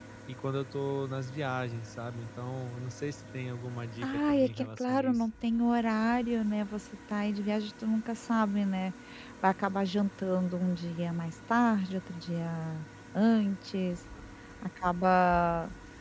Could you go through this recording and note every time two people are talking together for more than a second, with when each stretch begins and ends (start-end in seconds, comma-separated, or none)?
4.0-5.2